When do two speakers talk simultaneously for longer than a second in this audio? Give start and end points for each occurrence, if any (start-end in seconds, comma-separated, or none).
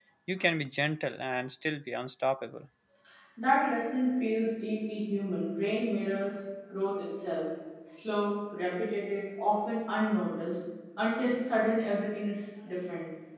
none